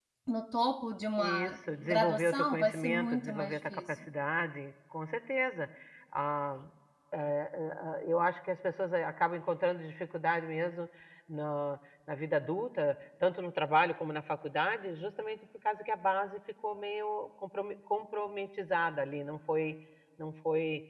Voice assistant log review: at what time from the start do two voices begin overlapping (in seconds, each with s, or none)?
1.2 s